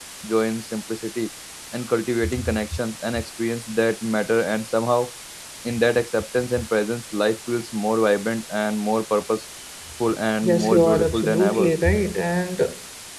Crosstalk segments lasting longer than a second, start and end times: 10.4-11.7

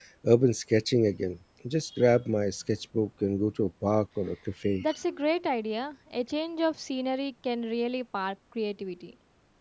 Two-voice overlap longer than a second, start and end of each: none

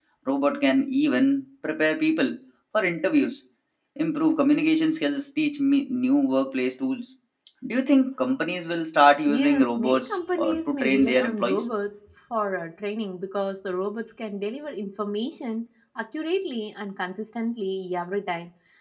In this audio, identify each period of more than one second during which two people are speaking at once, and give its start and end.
9.3-11.6

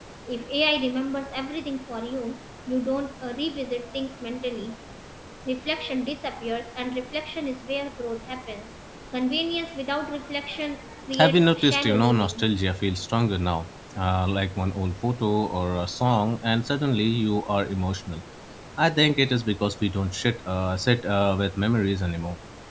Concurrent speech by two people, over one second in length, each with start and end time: 11.2-12.5

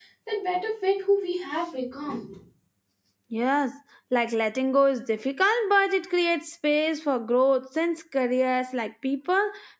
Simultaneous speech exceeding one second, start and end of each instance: none

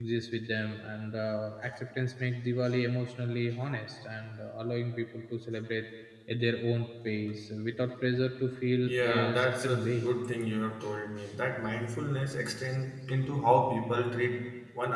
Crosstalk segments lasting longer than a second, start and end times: 8.8-10.1

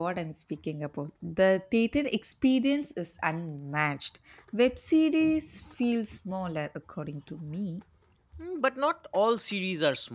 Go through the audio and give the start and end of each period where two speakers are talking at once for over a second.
none

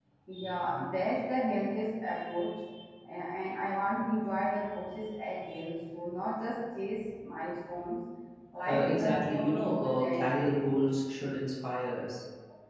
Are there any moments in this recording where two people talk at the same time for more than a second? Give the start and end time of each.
8.6-10.7

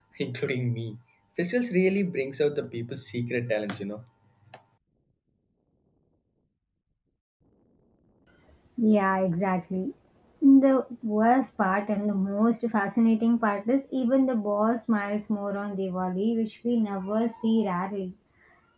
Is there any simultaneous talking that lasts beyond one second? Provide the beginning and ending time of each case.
none

